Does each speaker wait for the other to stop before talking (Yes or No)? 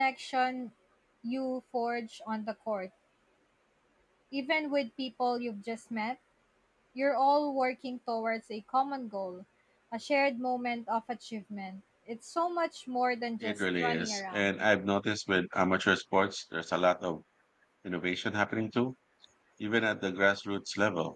No